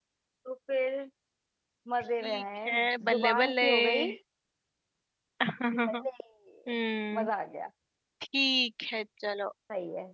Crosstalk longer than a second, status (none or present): present